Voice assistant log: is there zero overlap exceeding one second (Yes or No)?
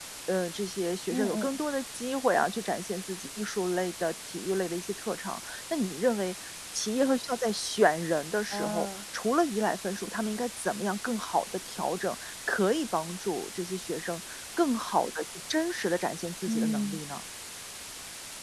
Yes